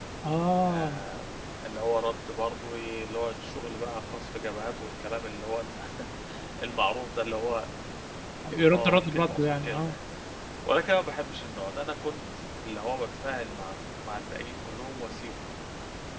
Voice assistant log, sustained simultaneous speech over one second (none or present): present